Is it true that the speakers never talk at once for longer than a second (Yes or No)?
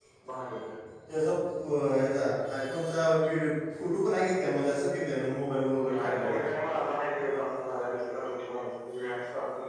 Yes